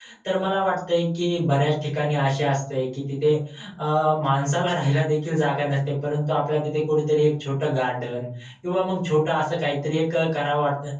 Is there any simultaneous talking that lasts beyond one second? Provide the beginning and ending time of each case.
none

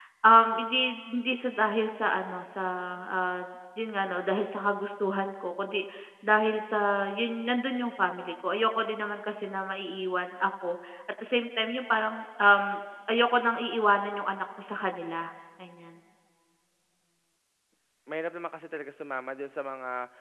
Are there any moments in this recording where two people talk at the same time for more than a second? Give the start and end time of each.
none

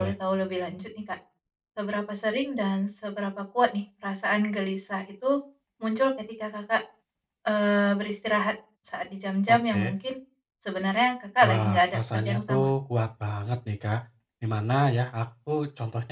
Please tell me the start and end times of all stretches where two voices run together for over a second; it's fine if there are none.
11.4-12.7

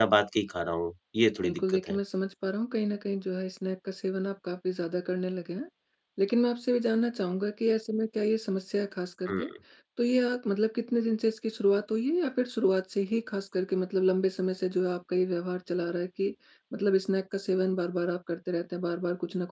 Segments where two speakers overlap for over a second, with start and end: none

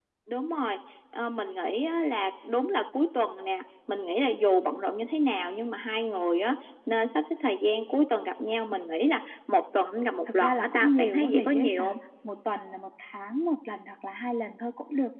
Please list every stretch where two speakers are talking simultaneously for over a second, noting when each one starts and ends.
10.4-12.0

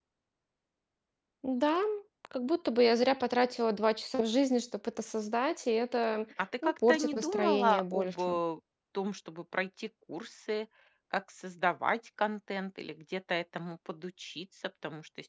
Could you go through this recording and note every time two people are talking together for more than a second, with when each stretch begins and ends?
6.6-8.4

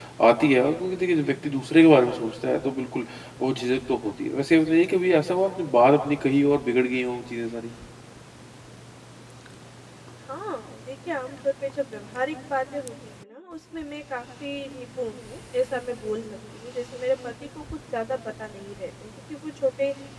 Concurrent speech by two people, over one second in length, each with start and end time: none

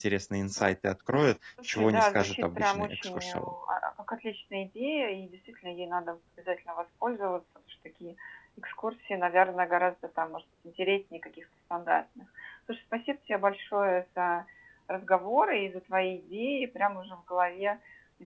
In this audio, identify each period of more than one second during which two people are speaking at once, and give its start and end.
1.7-3.5

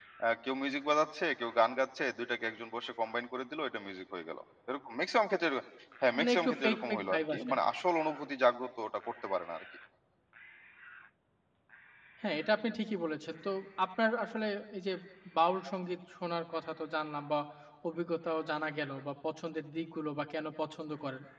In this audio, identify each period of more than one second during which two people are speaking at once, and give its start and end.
6.2-7.5

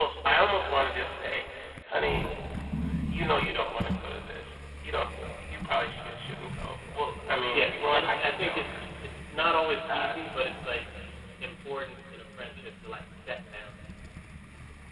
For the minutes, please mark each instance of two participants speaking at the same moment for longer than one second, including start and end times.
7.5-8.8

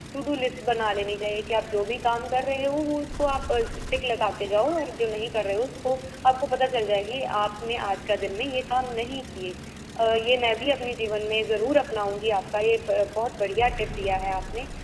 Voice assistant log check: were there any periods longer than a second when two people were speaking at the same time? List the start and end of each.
none

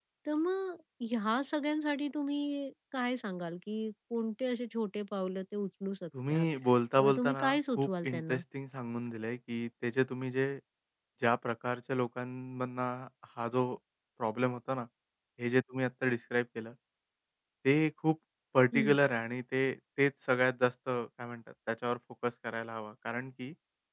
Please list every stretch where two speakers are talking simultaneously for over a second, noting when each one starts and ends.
7.0-8.4

